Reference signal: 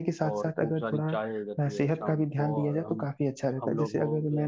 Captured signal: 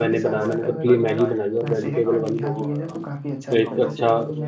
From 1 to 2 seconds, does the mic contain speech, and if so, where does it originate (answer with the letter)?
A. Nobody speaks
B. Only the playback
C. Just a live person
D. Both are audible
D